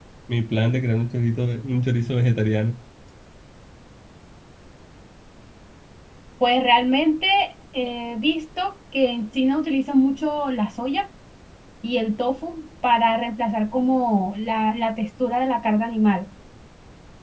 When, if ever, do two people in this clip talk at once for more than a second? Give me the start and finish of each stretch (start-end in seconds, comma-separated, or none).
none